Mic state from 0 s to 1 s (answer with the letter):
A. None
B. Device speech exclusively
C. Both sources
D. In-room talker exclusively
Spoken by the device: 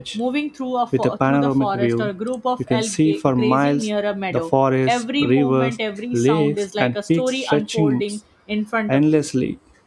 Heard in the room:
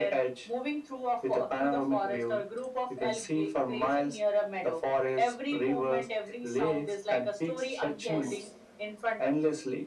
B